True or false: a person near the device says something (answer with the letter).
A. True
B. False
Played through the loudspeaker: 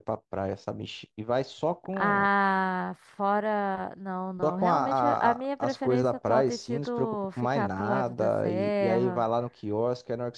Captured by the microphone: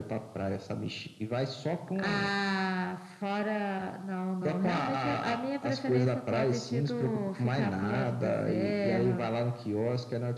B